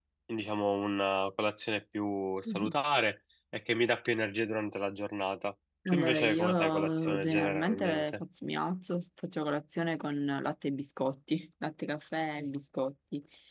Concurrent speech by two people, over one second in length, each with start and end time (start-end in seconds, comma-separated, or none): 5.9-8.1